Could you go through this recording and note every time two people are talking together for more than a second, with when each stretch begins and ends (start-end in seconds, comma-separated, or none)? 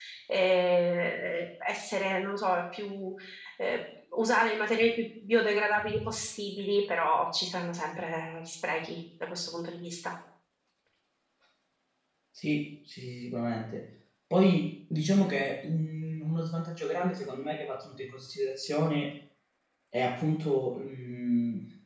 none